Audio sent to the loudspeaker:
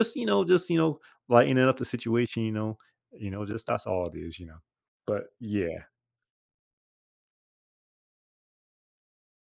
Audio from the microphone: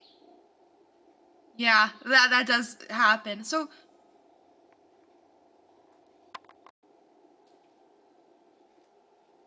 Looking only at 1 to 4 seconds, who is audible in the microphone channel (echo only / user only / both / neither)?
user only